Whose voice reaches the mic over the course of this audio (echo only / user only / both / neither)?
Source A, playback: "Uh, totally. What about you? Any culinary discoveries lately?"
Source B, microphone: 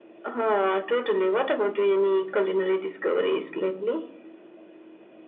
echo only